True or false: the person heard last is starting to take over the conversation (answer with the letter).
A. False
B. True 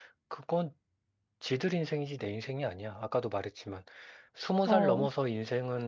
A